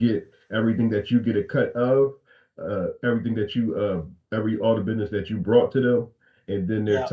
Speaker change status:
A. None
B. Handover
A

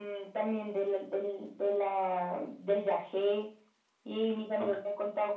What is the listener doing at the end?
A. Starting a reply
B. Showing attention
B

